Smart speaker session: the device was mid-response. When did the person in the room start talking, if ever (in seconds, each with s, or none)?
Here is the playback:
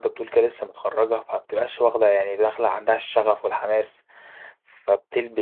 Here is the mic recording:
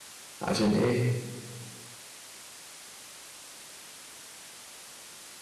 0.4 s